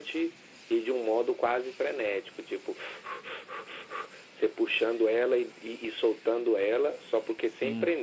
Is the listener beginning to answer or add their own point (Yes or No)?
No